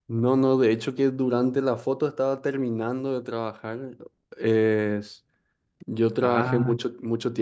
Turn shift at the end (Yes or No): No